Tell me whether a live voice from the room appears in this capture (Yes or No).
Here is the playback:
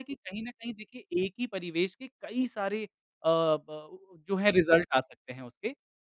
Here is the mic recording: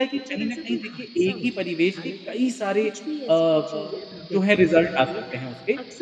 Yes